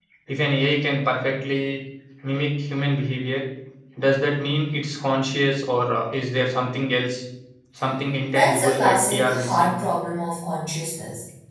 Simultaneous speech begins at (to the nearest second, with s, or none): 8 s